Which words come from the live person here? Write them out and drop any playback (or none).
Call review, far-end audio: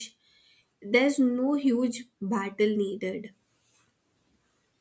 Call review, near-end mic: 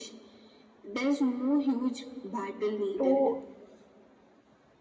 to